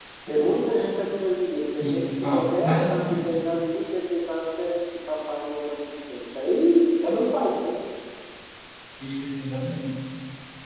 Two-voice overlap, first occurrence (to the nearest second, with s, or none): 2 s